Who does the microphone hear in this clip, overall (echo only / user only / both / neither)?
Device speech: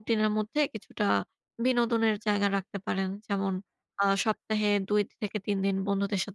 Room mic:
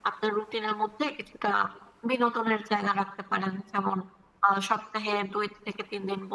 echo only